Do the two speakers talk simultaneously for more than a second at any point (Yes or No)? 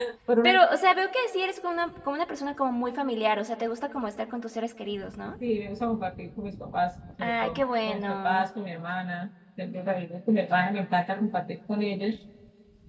Yes